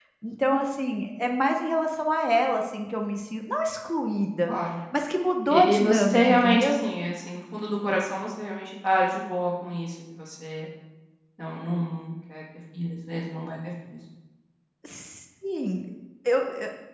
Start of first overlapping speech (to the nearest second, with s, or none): 5 s